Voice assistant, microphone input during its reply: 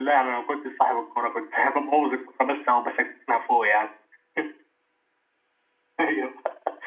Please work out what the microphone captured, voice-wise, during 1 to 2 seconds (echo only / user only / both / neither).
user only